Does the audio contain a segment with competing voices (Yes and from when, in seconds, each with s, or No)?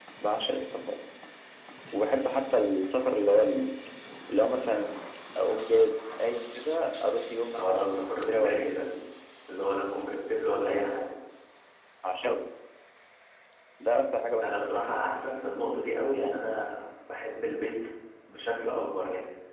Yes, from 7.6 s